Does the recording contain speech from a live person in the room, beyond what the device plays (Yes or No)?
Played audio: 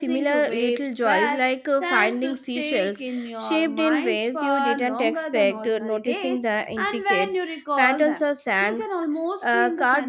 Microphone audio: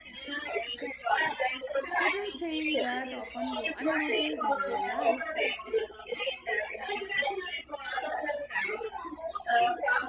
Yes